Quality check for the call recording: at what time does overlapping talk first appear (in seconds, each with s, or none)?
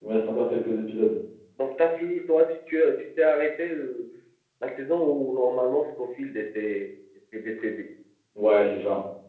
none